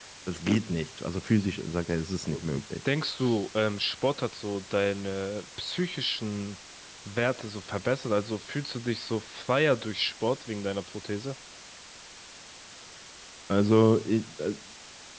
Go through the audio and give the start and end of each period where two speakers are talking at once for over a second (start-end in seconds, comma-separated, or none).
none